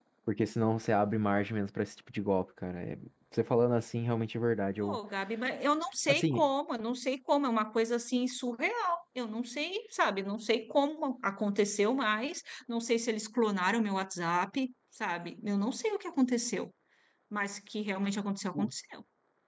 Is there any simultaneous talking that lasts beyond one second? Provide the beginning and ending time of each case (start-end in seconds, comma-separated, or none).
none